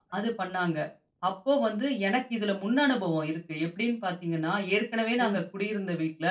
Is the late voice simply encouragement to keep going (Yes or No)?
Yes